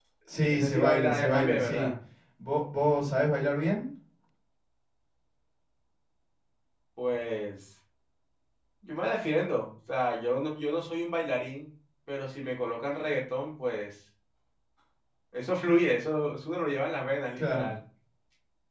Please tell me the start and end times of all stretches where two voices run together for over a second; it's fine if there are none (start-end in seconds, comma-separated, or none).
0.5-1.9